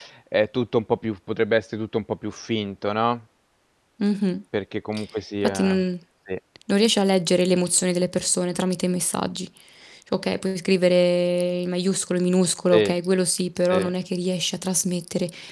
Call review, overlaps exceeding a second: none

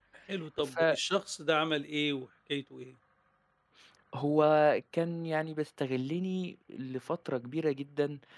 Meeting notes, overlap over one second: none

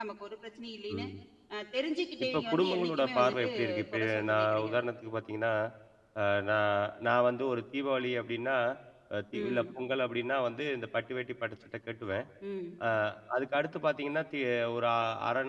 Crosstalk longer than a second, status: present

